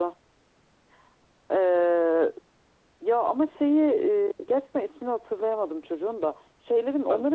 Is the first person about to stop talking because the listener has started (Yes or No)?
No